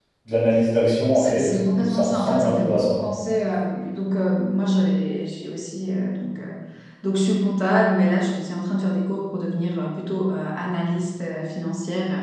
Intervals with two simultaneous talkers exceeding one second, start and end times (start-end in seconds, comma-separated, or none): 1.1-2.9